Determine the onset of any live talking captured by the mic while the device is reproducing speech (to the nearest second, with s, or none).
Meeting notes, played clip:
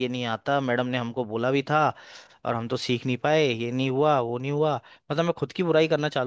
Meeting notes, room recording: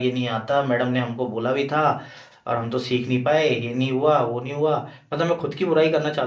none